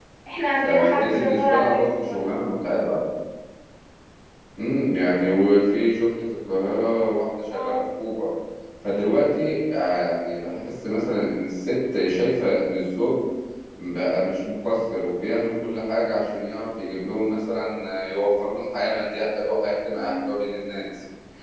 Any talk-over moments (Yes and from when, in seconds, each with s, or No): Yes, from 0.6 s